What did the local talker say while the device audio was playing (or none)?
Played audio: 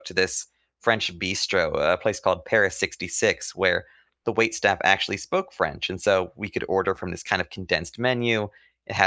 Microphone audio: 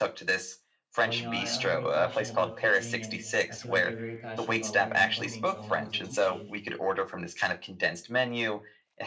well, you know, I, I'm very passionate about teaching and I feel like you're very passionate about learning coding. So I wanted to teach you.